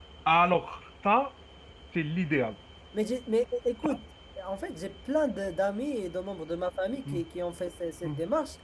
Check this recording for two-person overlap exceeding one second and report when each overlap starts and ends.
none

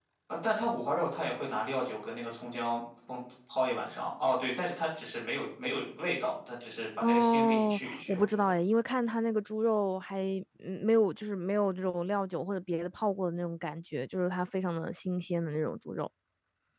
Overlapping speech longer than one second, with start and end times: 7.0-8.4

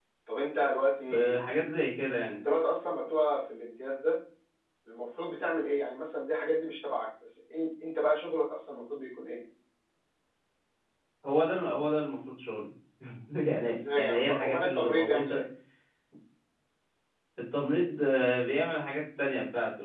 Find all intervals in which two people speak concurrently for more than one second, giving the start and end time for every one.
13.6-15.4

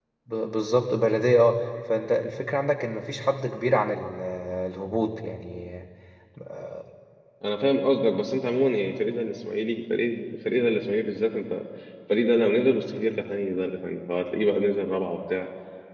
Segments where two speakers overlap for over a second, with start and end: none

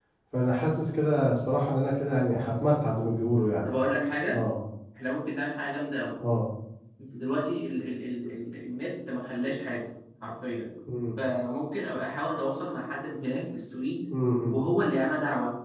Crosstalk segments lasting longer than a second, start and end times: none

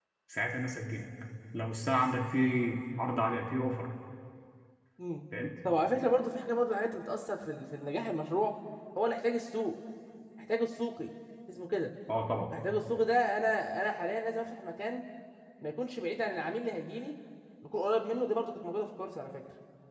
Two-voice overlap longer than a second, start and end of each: none

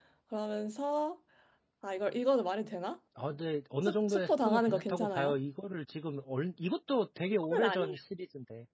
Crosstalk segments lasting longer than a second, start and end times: 3.8-5.4

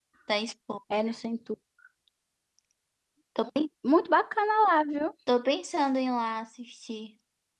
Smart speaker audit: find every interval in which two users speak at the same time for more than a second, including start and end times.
none

